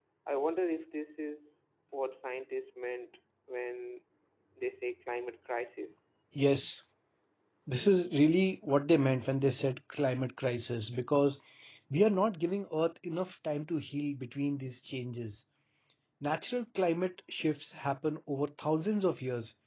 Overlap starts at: none

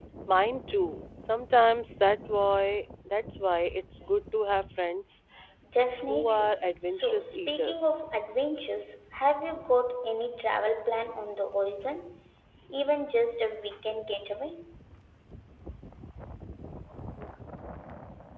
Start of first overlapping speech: 6.1 s

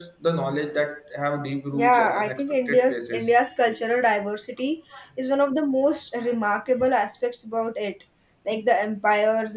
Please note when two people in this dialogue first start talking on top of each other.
1.7 s

